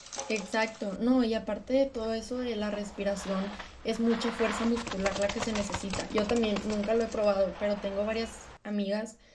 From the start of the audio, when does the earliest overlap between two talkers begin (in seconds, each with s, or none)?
none